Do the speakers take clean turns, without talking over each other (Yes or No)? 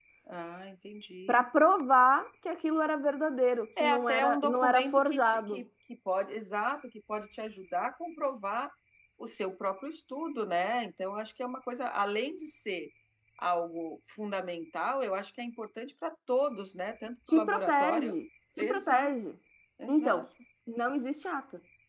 No